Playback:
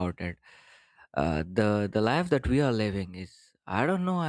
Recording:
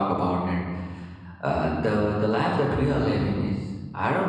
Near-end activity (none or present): none